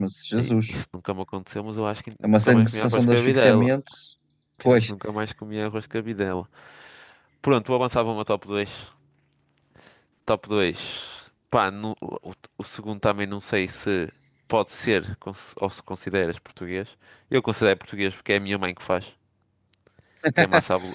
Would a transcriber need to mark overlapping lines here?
Yes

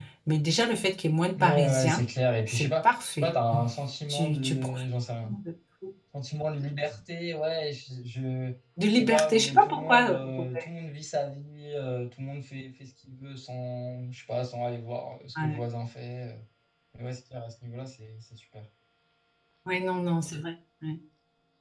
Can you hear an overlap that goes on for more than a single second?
Yes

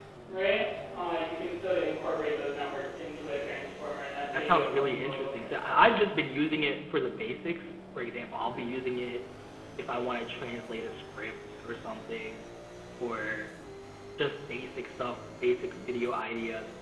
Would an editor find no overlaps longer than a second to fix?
No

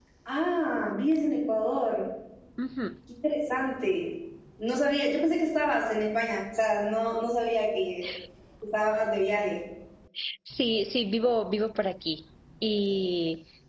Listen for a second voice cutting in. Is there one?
No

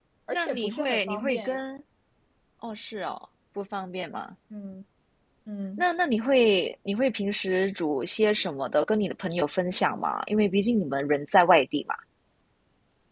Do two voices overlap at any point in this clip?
Yes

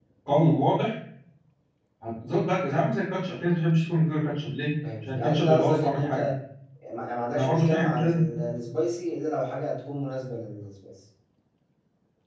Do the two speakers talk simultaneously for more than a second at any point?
Yes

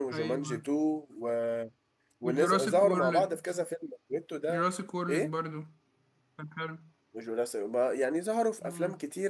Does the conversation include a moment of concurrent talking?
Yes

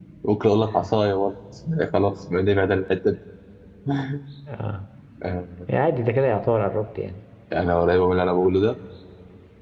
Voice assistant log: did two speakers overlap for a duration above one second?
No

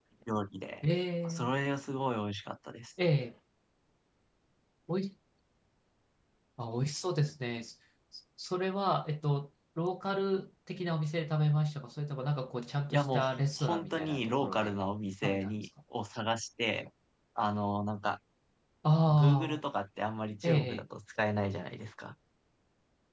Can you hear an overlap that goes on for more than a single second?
Yes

